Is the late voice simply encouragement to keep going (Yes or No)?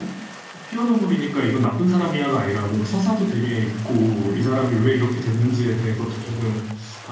Yes